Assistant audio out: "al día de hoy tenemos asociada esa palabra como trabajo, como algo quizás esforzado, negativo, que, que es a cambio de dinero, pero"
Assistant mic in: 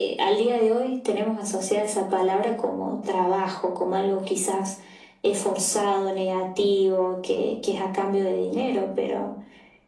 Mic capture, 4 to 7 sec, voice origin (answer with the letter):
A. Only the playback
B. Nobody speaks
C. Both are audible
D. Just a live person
A